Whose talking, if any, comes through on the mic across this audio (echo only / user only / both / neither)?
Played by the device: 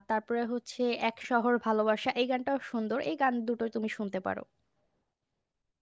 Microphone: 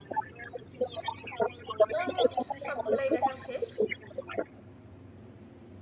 both